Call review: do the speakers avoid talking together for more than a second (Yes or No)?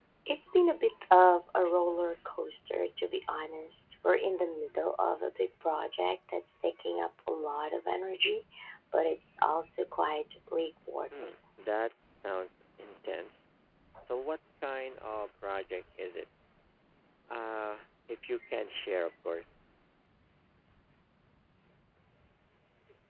Yes